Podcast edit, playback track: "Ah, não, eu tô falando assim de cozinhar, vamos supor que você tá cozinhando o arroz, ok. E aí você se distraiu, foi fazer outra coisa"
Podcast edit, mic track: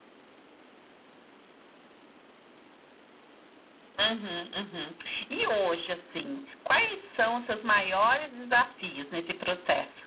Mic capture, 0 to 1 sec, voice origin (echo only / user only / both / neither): neither